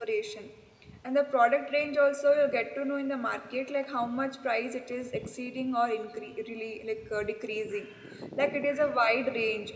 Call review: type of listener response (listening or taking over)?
listening